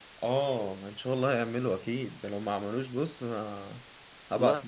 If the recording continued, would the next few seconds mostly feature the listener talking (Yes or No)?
Yes